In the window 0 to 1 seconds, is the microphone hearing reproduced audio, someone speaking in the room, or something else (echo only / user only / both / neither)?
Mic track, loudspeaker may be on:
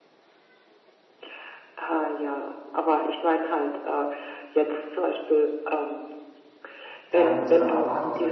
neither